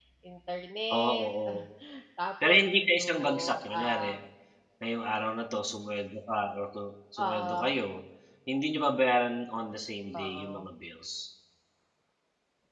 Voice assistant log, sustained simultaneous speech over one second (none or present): present